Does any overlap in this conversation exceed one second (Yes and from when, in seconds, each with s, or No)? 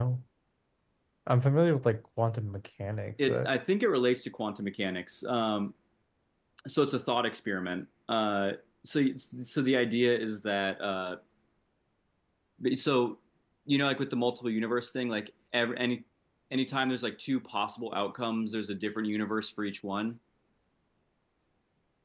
No